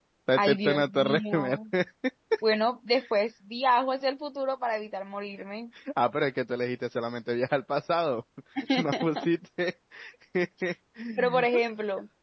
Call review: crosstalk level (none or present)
present